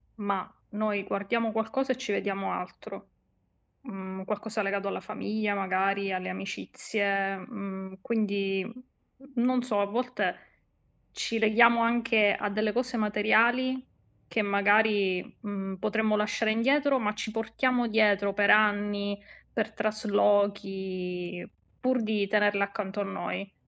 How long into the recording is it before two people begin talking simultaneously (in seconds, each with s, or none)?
none